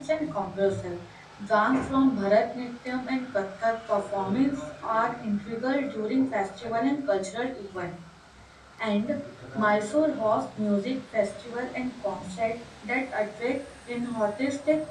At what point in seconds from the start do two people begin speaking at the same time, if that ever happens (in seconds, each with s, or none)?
none